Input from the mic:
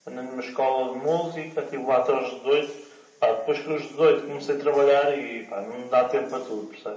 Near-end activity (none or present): none